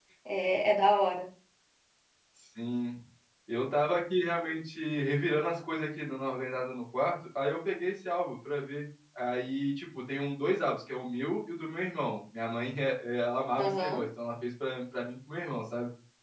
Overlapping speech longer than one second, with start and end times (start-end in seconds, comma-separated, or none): none